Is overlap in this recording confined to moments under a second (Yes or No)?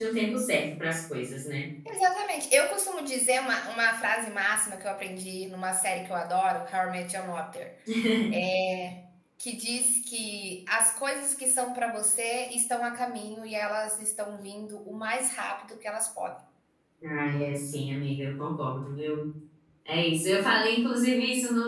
Yes